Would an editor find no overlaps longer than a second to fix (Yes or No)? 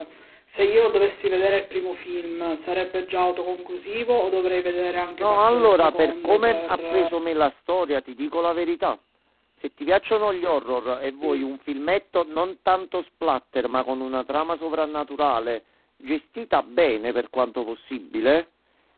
No